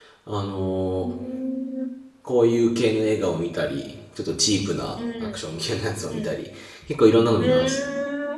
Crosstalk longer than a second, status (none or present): none